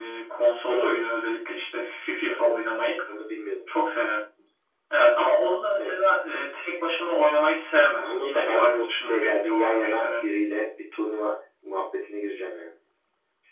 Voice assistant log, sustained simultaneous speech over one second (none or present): present